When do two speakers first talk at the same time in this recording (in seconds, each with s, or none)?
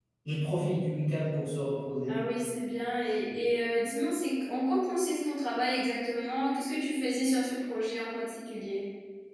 none